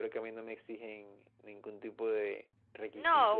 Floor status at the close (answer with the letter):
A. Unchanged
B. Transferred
B